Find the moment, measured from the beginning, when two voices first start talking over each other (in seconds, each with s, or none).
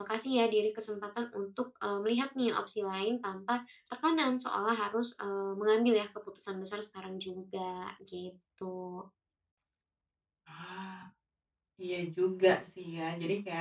none